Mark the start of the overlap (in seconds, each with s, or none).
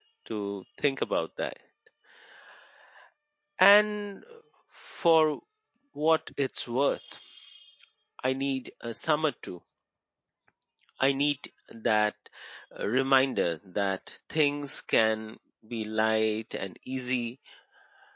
none